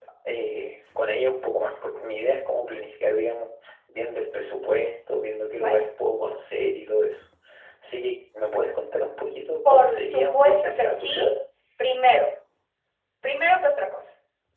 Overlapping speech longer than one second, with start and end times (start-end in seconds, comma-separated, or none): 9.7-11.3